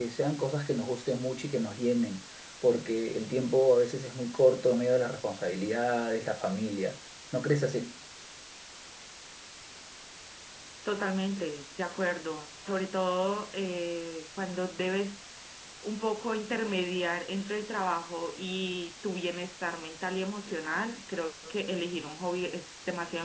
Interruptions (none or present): none